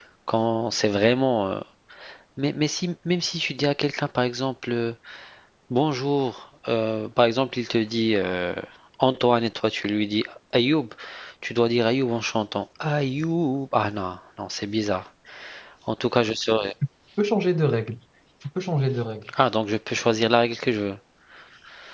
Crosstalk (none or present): none